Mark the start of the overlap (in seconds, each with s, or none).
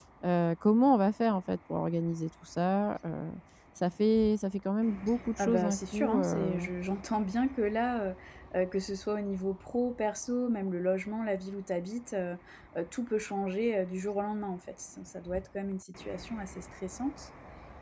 5.4 s